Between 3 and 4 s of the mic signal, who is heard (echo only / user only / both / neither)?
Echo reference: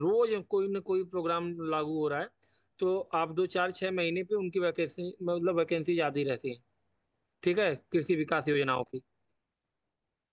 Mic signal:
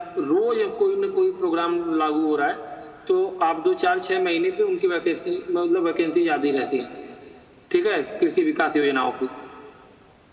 echo only